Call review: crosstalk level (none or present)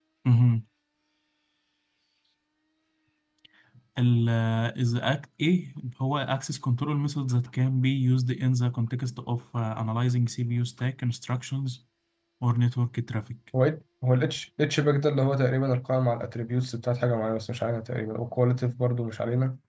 none